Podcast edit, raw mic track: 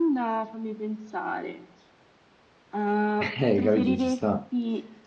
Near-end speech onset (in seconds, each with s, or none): 3.2 s